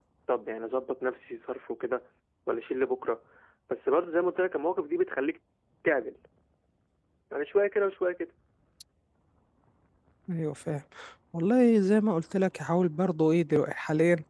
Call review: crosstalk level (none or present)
none